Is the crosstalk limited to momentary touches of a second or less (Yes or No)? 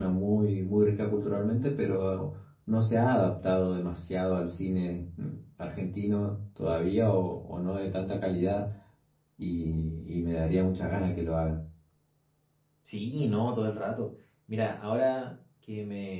Yes